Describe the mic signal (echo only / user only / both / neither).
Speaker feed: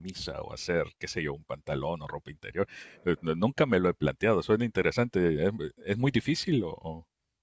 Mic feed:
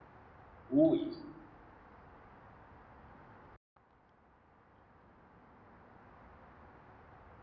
user only